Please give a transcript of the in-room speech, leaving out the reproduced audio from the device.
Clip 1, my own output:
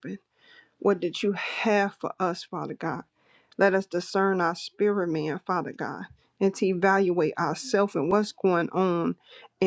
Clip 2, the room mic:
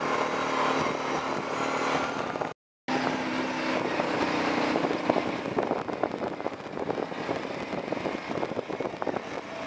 none

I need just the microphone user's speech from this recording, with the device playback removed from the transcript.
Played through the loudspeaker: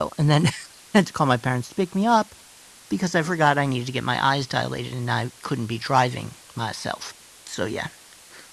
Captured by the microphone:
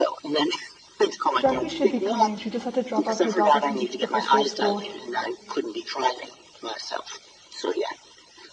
Jackie should be coming. She just had to drop off her daughter since it's the first day of school.

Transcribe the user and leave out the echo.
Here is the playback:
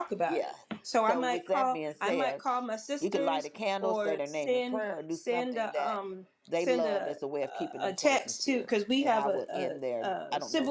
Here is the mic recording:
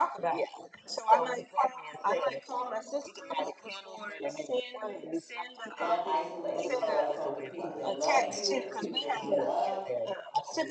don't isolate yourself from the people that love you and the people that you love

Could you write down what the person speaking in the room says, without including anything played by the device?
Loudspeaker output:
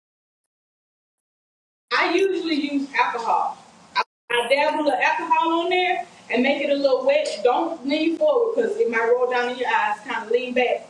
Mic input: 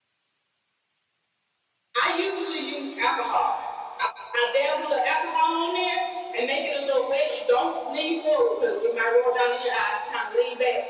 none

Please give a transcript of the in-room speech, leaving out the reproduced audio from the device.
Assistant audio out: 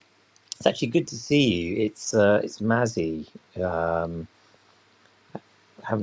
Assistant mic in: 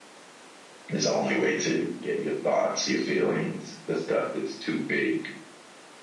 It's the only way to get your thoughts, your feelings, the stuff that's too big

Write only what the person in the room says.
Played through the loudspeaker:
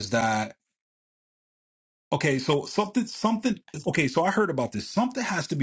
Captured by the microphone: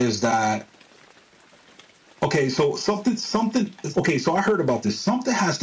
none

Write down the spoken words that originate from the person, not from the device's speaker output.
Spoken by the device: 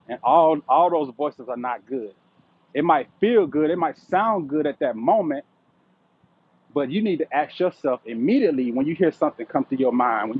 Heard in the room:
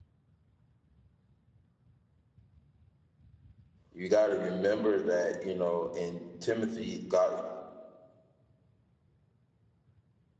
you got to remember that you know in Timothy, God,

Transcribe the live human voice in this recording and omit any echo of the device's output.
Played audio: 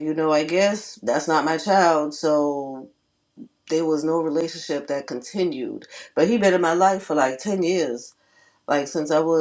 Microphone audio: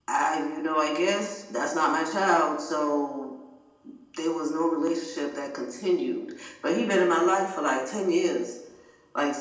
none

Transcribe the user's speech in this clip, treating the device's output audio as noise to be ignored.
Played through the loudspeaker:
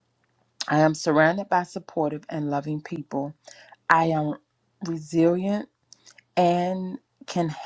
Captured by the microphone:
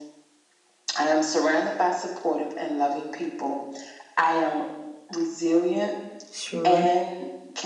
Shirapeli,

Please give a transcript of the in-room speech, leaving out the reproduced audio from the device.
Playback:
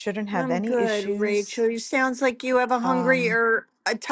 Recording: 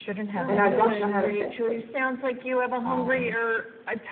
And I don't know how to fix it.

